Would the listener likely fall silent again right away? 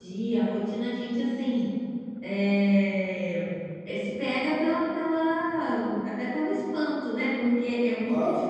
Yes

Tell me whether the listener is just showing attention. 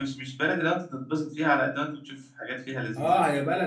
No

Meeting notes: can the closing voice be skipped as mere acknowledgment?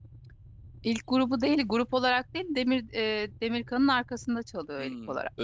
No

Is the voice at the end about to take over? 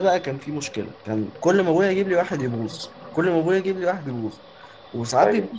No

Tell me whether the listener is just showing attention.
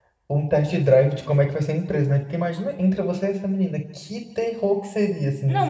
No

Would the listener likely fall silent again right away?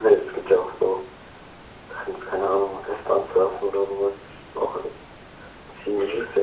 No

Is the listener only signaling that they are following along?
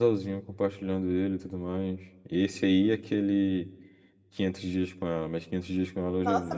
No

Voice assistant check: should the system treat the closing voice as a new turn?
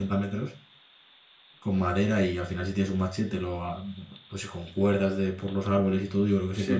Yes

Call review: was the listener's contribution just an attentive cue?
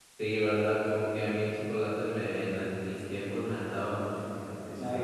No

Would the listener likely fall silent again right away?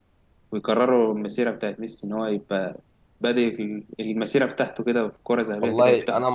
No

